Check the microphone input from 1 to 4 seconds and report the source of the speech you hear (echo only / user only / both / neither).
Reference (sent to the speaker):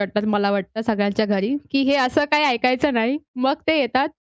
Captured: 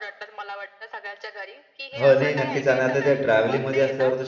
both